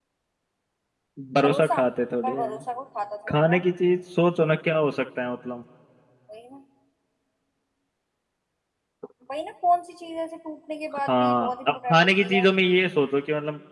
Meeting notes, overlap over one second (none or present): present